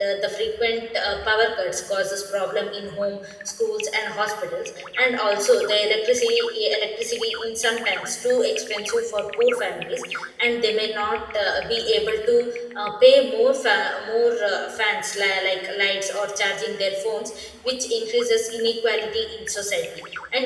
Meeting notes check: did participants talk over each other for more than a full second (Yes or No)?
No